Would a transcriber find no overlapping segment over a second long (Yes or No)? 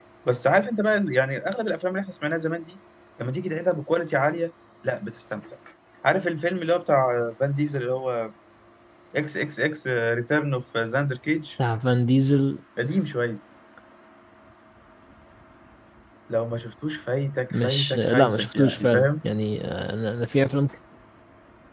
No